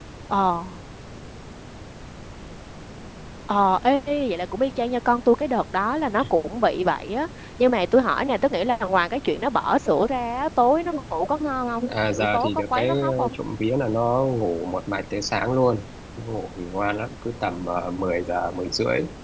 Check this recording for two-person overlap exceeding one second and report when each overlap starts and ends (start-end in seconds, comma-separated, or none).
11.9-13.3